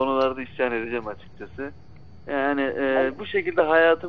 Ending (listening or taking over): listening